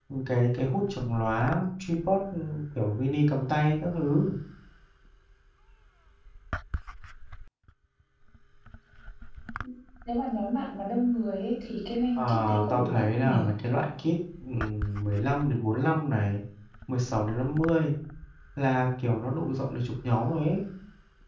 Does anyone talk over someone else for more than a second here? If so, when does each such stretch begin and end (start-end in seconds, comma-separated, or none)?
12.2-13.4